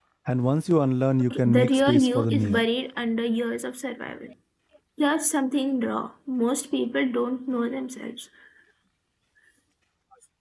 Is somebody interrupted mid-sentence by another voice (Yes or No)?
Yes